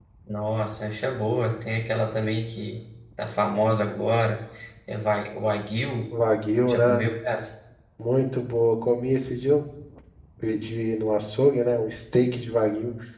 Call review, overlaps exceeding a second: none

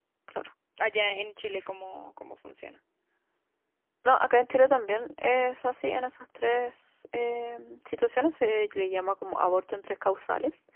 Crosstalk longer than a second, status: none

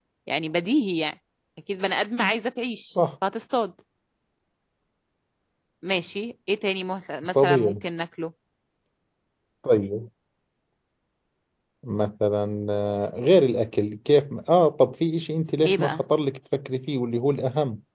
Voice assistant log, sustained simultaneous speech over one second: none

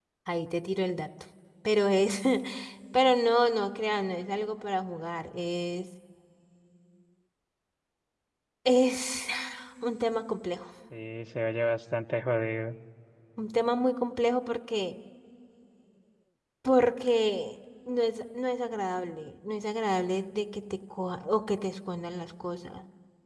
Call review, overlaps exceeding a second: none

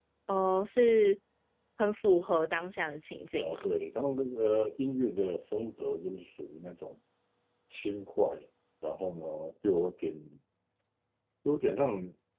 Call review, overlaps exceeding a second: none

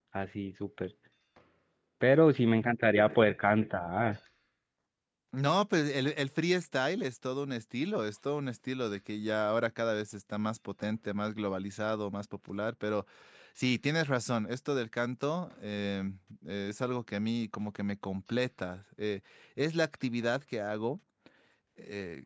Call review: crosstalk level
none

